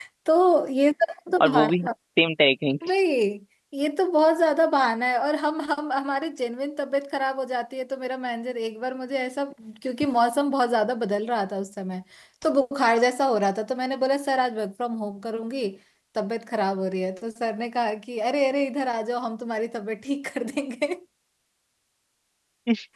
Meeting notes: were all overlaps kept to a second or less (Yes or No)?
Yes